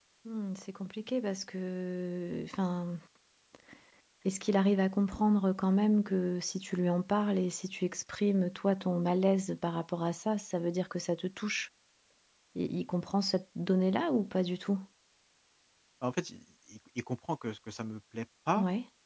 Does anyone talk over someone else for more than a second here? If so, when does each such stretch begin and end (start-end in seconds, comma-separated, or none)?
none